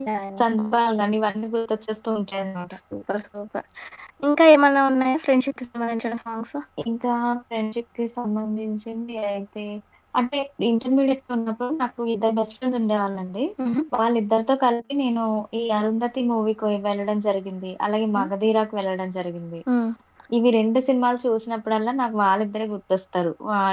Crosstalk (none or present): none